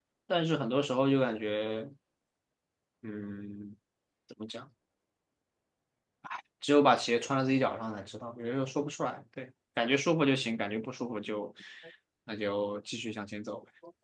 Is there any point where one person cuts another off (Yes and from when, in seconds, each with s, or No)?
No